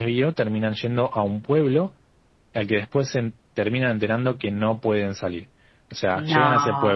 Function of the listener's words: listening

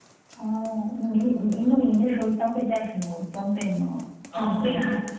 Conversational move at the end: taking over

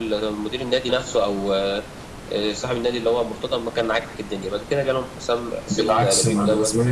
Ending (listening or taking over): taking over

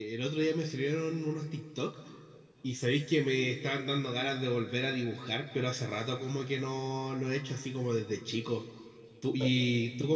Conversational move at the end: listening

